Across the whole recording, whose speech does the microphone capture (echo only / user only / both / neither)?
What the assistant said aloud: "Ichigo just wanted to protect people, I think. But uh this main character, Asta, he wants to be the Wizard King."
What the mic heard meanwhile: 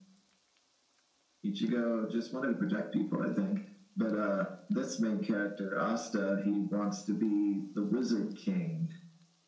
echo only